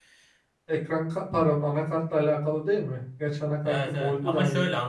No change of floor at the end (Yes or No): No